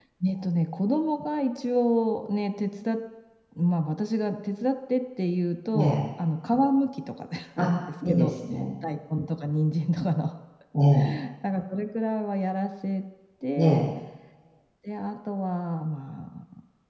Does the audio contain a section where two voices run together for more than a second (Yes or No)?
No